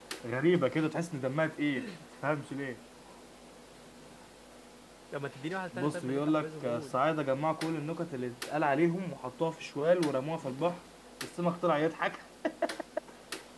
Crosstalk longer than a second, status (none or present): present